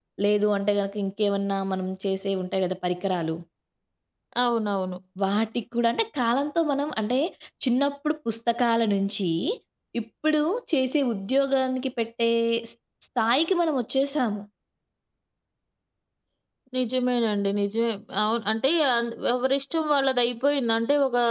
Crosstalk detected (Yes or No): No